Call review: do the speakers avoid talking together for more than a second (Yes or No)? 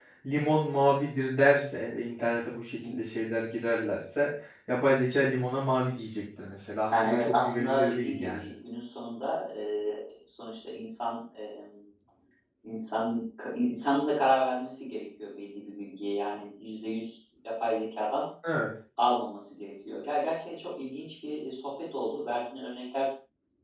No